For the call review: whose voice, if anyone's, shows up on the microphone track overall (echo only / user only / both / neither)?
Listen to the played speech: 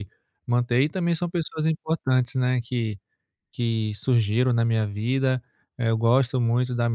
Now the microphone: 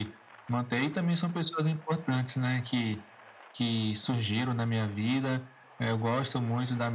echo only